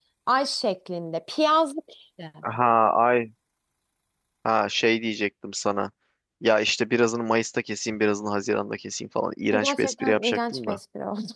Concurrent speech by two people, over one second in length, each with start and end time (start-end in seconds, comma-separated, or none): 9.5-10.8